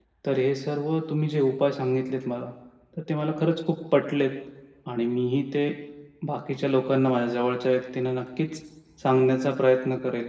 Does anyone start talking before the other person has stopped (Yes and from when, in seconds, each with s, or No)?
No